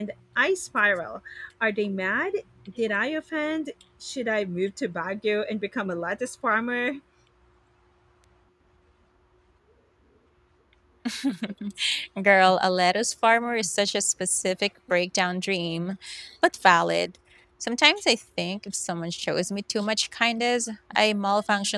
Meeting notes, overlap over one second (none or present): none